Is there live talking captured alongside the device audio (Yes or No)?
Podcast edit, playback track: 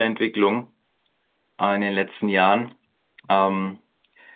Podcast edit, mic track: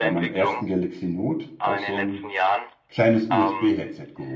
Yes